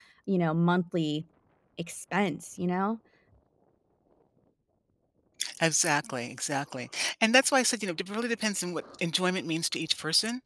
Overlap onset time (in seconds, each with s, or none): none